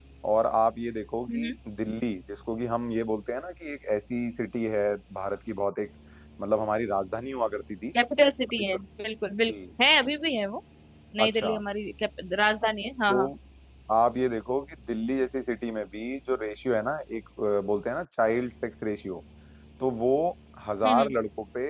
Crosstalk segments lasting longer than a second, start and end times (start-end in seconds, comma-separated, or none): none